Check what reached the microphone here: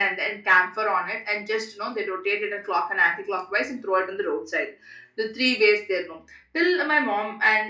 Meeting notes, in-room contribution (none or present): none